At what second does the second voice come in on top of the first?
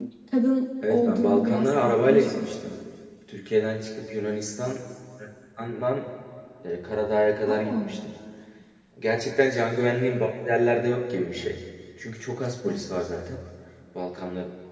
0.9 s

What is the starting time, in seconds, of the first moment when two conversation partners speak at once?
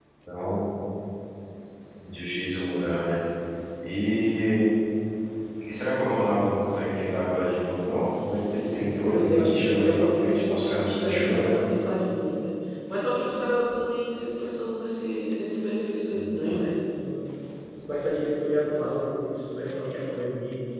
8.0 s

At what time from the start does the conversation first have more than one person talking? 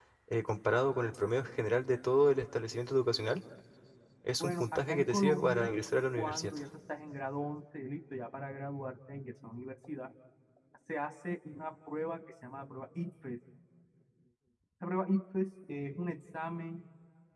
4.4 s

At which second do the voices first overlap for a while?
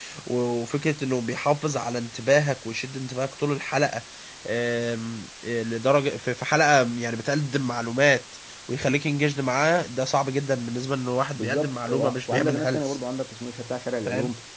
11.4 s

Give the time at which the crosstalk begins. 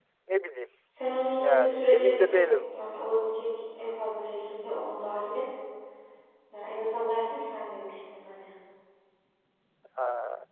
1.4 s

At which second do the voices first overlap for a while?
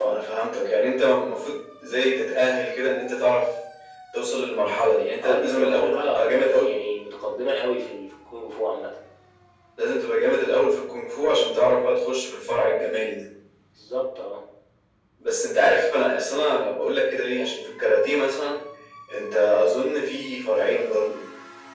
5.2 s

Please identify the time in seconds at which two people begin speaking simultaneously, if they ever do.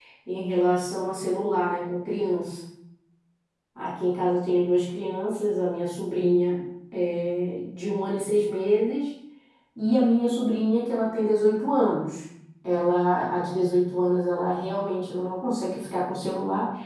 none

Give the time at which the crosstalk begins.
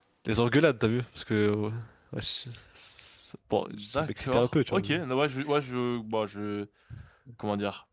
3.7 s

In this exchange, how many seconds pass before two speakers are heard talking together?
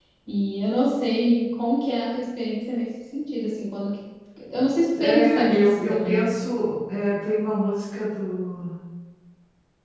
5.0 s

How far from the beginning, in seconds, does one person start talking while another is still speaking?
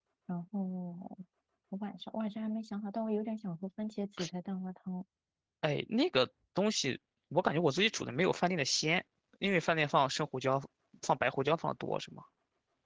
none

